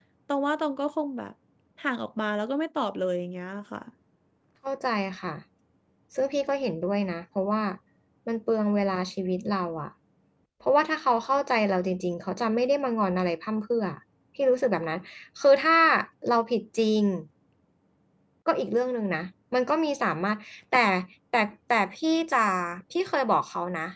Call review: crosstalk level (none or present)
none